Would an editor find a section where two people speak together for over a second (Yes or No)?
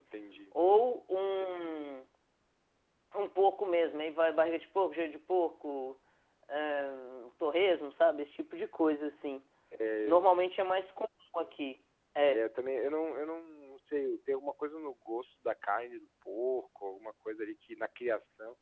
No